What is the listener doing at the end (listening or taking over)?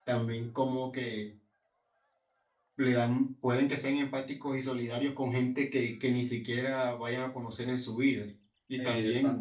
listening